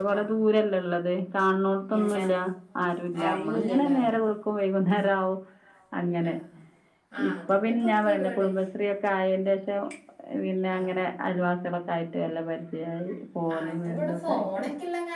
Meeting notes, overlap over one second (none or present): present